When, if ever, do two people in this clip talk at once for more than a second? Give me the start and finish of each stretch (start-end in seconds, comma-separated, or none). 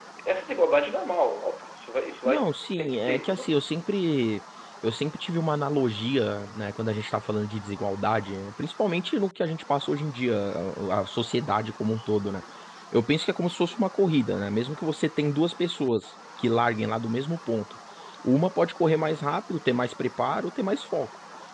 2.2-3.6